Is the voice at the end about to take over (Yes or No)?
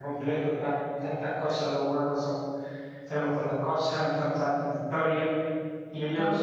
No